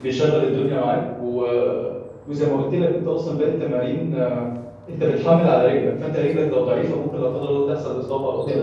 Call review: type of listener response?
listening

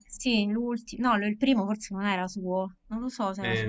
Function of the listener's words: taking over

